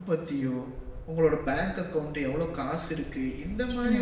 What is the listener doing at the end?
listening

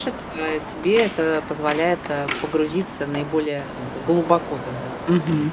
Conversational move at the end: taking over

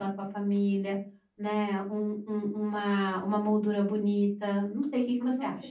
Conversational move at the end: taking over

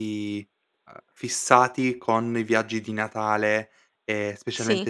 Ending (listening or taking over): listening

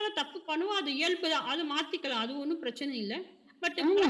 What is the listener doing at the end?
taking over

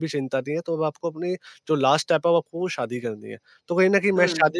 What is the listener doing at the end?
listening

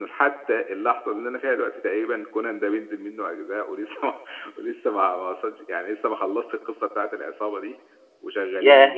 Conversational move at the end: taking over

